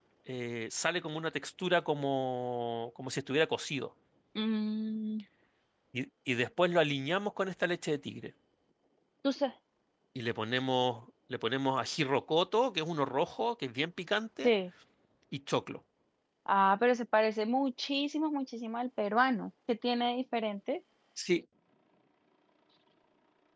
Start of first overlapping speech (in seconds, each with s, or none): none